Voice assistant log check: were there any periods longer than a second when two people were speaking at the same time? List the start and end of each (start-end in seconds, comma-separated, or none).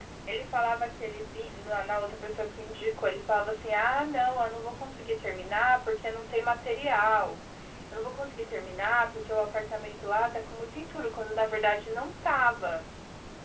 none